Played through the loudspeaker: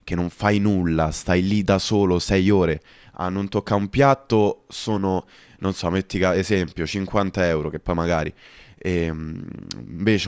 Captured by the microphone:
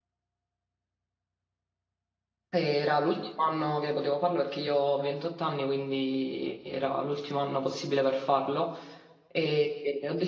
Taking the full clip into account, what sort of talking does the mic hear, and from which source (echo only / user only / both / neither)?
user only